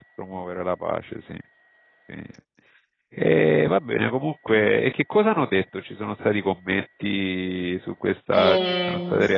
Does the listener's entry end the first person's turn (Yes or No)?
Yes